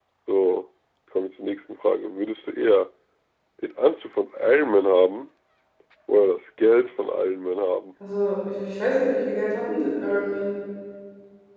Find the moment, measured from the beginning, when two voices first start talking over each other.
none

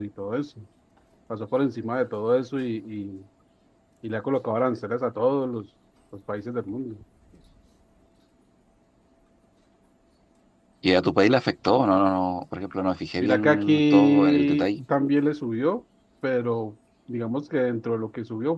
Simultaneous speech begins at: 13.2 s

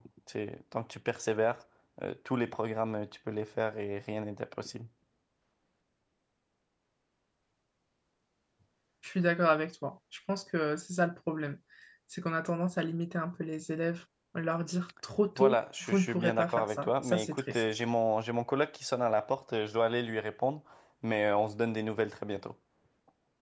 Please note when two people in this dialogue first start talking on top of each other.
15.4 s

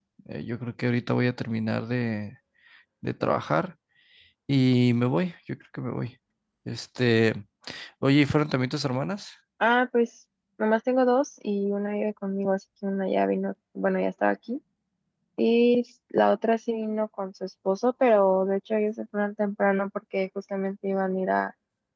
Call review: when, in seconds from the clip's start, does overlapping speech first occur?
none

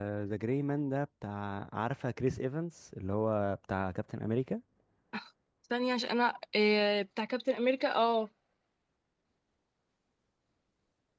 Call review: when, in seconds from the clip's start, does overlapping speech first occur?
none

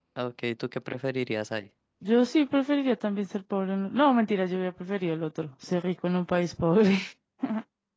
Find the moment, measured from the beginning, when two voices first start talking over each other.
none

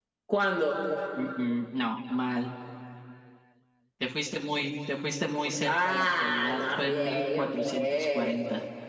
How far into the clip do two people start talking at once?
5.6 s

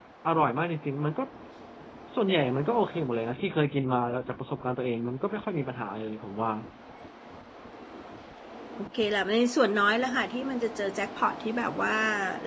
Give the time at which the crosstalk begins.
none

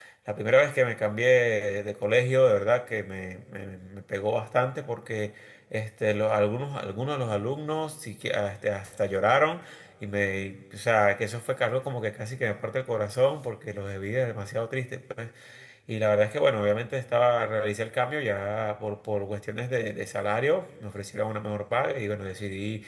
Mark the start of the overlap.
none

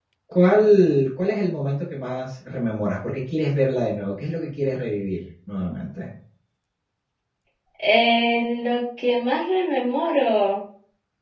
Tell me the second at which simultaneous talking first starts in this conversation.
none

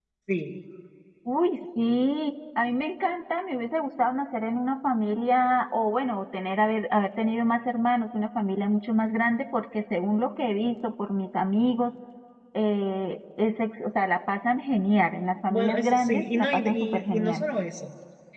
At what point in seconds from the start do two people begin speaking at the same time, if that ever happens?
15.5 s

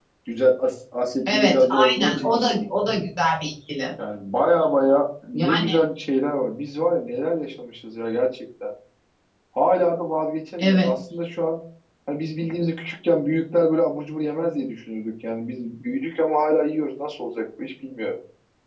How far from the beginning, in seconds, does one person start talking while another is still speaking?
1.3 s

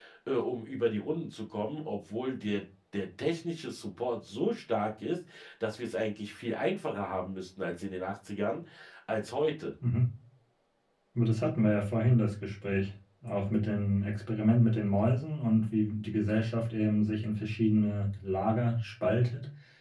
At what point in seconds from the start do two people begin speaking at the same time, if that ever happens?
none

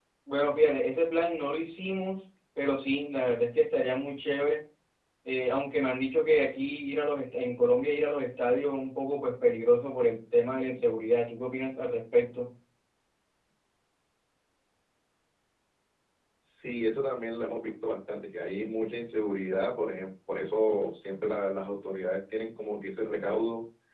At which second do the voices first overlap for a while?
none

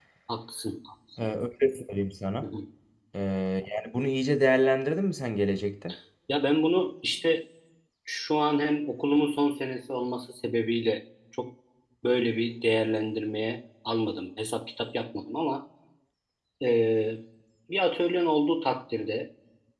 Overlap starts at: none

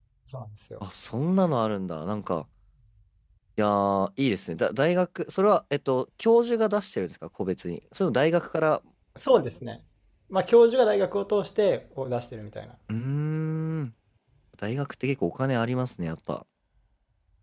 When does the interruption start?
none

